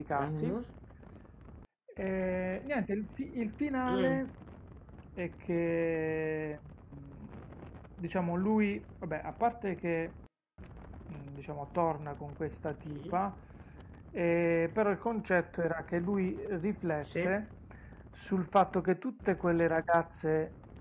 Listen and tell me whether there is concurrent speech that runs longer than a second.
No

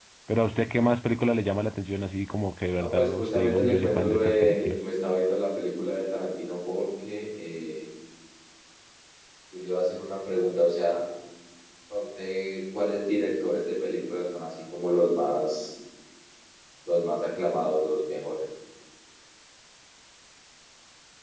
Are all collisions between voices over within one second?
No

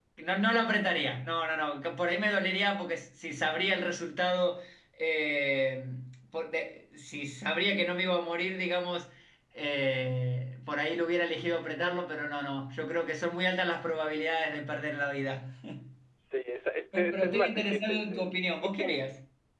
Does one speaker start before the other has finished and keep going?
Yes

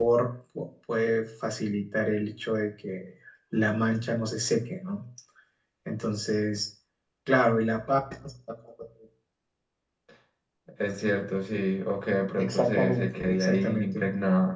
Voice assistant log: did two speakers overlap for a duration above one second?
Yes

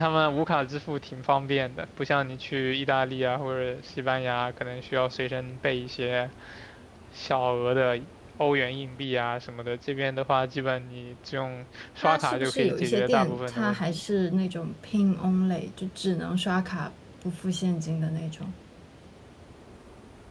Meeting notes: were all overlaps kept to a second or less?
No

